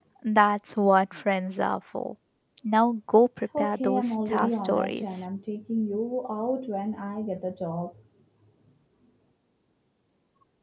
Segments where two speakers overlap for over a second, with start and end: 3.6-5.2

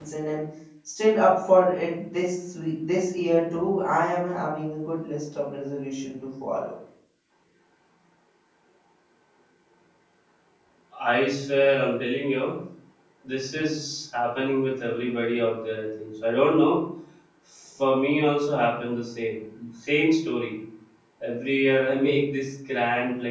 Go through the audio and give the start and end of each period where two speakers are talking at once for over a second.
none

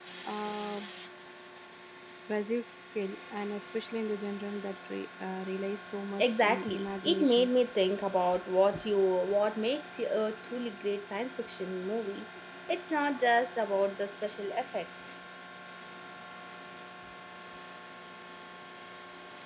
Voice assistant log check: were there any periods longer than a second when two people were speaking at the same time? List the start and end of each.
6.2-7.5

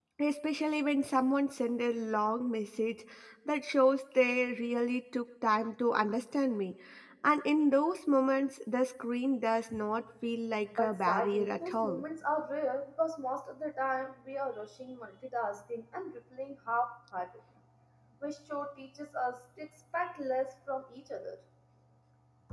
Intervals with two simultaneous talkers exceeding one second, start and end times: 10.8-12.0

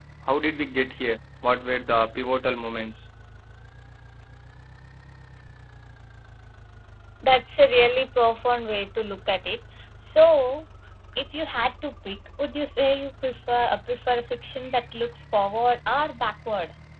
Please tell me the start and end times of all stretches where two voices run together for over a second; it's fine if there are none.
none

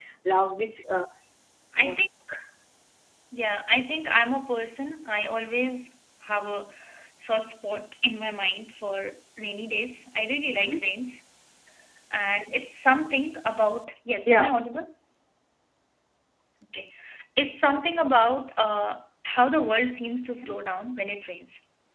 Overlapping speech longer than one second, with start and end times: none

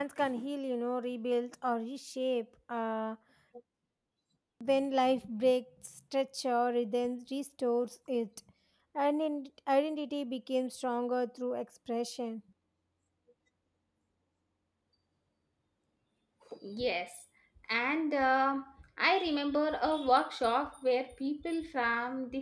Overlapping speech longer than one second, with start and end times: none

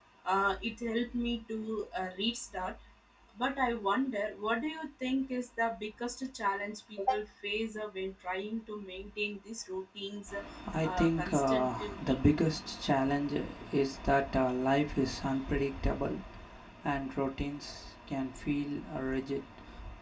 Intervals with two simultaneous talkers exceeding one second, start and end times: 10.8-12.2

